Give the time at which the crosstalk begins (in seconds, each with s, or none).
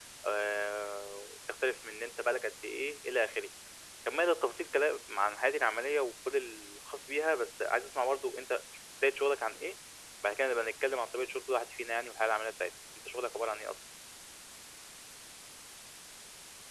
none